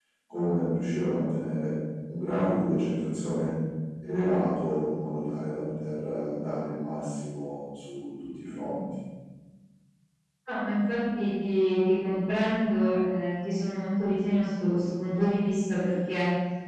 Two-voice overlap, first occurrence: none

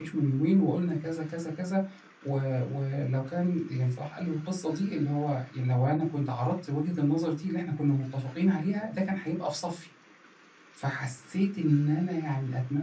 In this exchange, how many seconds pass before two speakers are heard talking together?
none

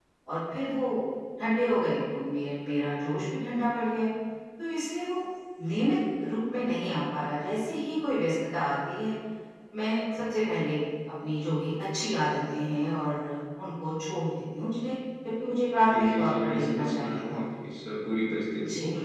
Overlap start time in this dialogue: 15.9 s

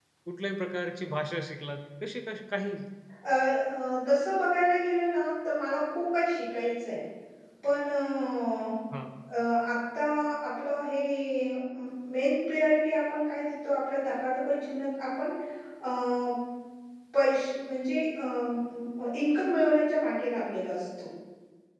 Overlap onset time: none

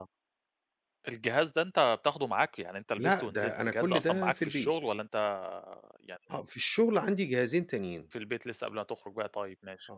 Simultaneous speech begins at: 3.0 s

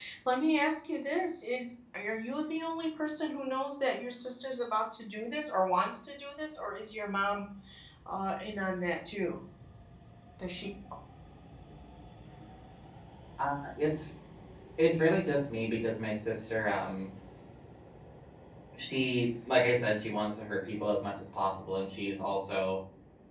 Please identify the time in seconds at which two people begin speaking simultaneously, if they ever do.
none

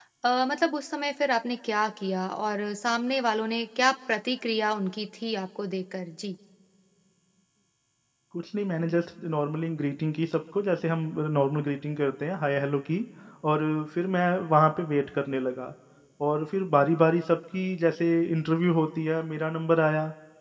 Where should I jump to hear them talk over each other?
none

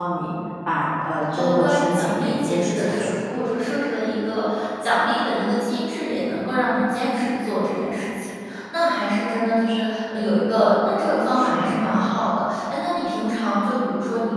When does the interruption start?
1.3 s

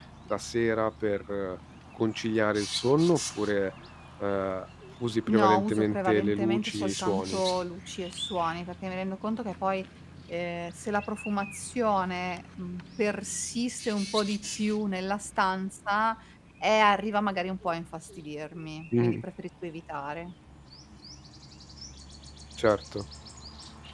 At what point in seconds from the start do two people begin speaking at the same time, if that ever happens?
5.3 s

